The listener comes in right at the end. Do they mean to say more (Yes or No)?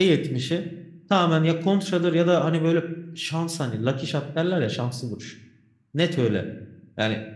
No